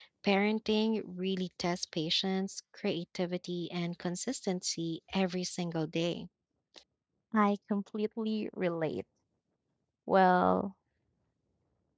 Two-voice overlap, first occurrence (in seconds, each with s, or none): none